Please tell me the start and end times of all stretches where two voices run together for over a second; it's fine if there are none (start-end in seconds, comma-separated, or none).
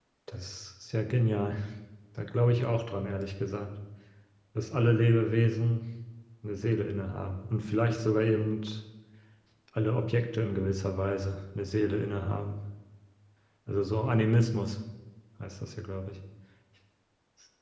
none